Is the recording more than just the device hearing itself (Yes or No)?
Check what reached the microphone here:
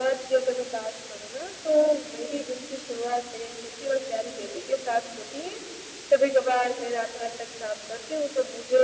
No